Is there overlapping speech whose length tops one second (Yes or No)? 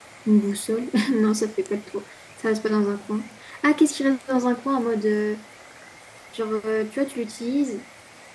No